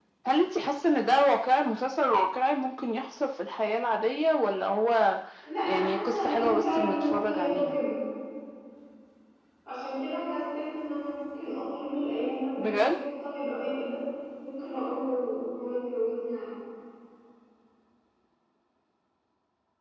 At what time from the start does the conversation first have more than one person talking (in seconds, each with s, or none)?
5.6 s